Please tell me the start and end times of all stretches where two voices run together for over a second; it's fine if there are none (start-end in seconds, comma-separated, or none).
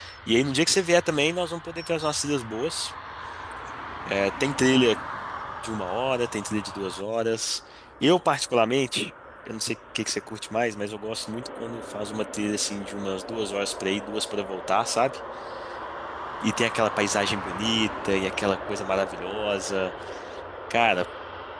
none